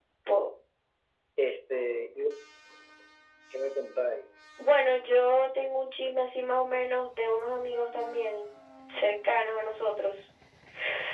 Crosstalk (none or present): none